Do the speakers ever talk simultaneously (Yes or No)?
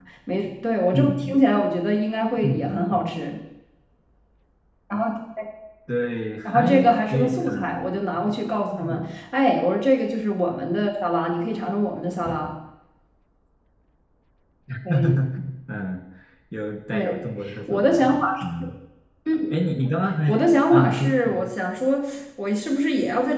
Yes